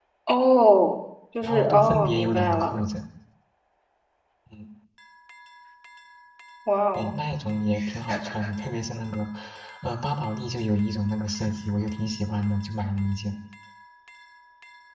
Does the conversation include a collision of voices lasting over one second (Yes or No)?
Yes